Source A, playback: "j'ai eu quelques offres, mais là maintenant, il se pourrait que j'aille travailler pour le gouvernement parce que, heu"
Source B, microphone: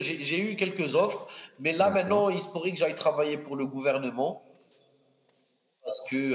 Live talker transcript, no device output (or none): d'accord.